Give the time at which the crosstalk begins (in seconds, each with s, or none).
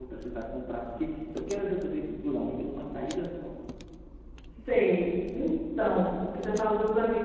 none